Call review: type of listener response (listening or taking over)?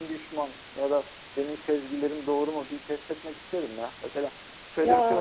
listening